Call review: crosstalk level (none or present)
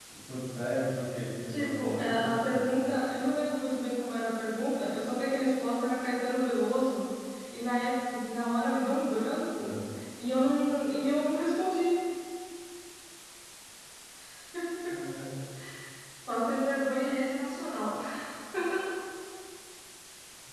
present